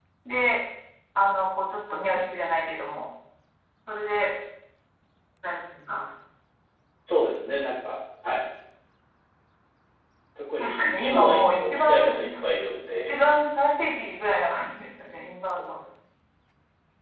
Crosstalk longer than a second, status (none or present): present